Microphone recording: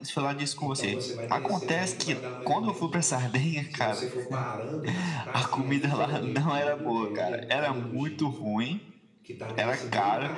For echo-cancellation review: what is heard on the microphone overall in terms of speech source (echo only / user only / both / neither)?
both